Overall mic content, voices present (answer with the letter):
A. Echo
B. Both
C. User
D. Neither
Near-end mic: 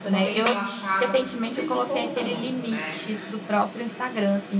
B